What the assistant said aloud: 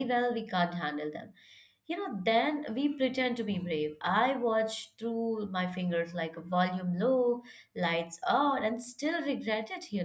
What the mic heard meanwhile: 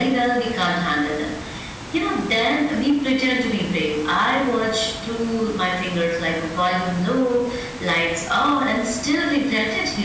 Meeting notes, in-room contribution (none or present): none